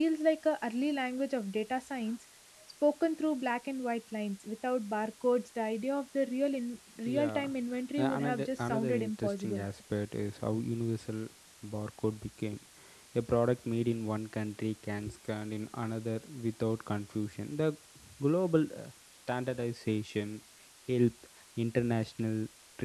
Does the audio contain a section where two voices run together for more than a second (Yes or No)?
Yes